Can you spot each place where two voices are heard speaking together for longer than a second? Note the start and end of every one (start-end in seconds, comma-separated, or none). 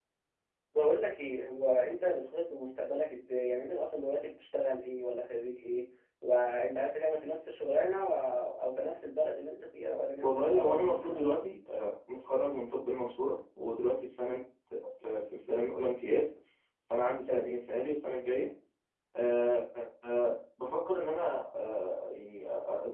10.2-11.4